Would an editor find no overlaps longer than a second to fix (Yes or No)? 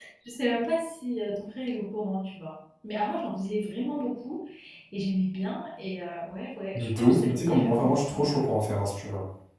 No